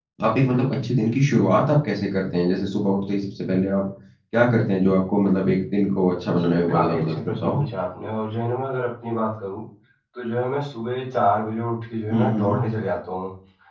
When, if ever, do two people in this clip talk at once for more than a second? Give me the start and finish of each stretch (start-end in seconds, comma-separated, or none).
6.4-7.6